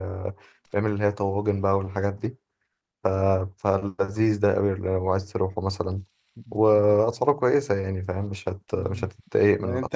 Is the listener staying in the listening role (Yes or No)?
No